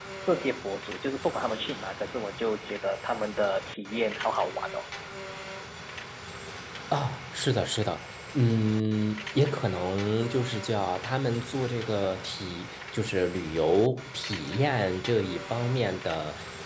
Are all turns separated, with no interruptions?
Yes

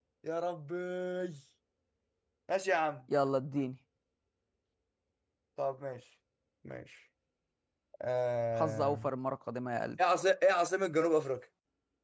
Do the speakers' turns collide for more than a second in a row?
No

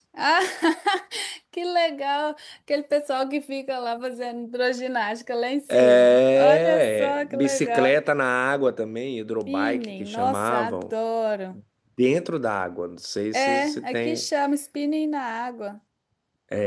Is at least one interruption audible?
Yes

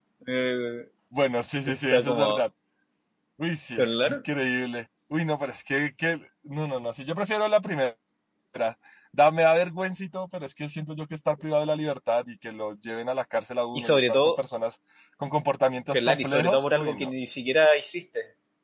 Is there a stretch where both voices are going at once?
Yes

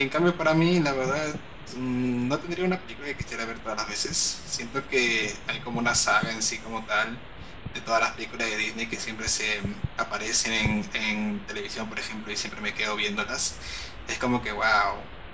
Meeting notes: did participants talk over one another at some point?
No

